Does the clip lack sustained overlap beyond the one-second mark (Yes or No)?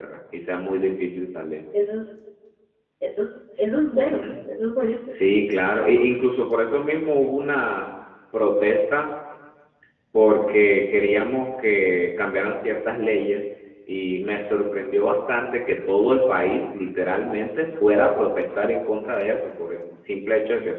Yes